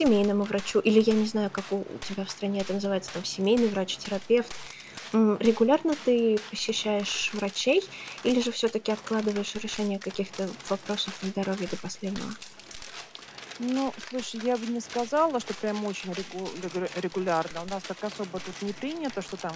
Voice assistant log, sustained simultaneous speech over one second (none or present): none